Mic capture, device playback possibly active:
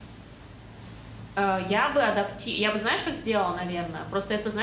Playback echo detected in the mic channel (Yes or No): No